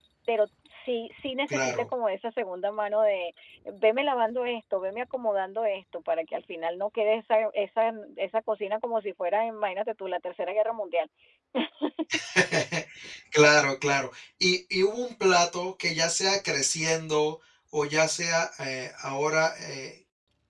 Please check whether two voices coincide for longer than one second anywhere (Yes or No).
No